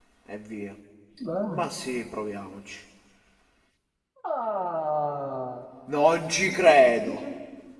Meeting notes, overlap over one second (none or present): none